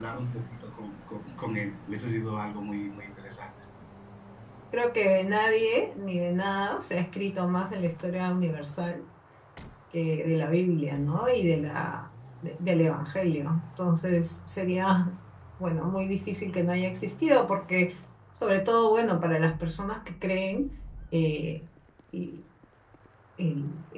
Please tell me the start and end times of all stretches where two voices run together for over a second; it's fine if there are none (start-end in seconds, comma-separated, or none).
none